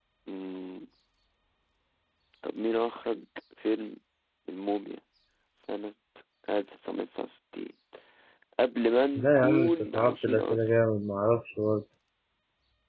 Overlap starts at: 9.2 s

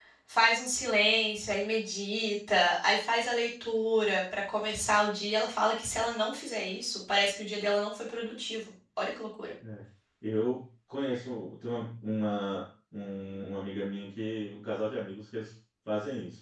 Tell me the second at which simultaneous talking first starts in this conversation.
none

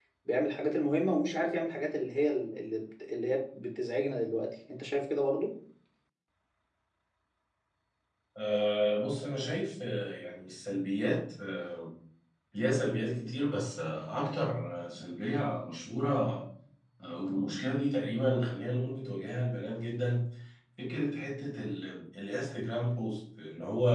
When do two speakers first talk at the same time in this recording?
none

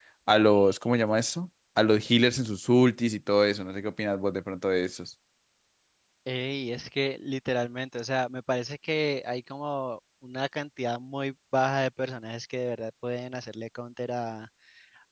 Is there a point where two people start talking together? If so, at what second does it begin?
none

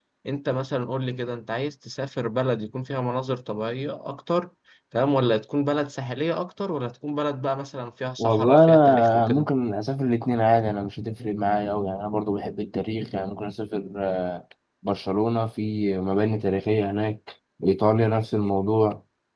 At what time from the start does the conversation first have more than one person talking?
8.2 s

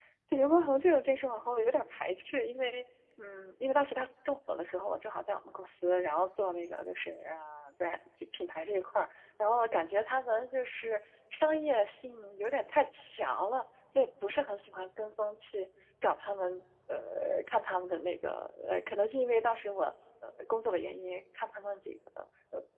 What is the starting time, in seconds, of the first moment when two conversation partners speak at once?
none

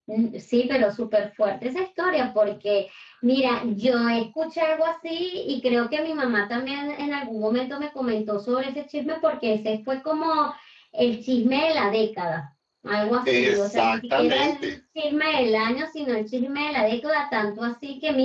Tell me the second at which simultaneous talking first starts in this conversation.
13.2 s

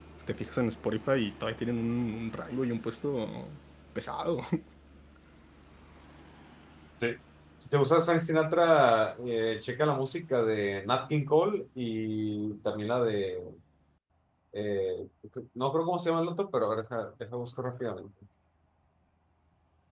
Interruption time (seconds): none

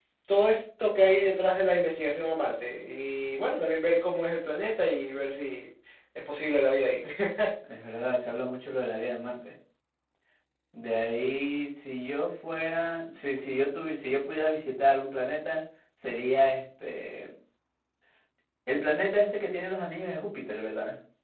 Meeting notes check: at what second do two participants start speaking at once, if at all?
none

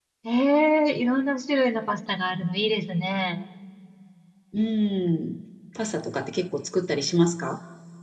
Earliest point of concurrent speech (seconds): none

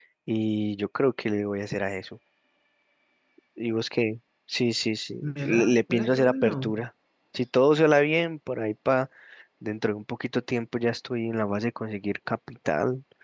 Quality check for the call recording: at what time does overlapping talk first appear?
5.2 s

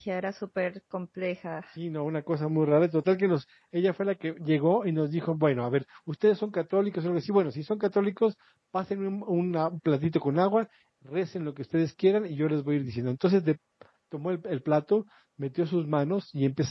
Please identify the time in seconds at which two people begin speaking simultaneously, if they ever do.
none

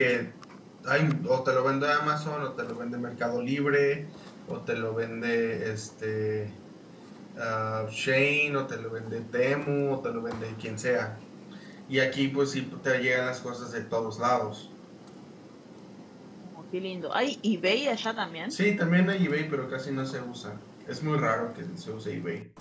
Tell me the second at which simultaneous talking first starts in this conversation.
none

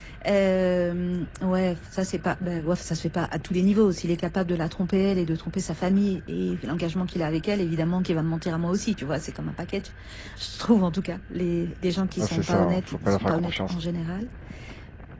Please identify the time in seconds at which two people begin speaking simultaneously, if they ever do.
12.2 s

